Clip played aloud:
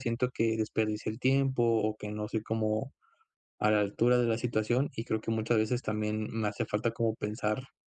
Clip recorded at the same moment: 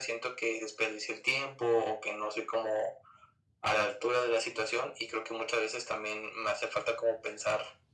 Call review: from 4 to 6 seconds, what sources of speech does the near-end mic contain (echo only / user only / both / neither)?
echo only